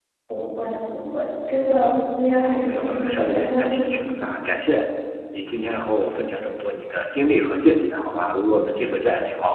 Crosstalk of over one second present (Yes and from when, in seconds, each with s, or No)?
Yes, from 2.4 s